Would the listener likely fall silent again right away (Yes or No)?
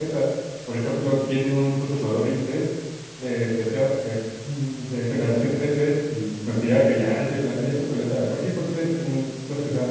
Yes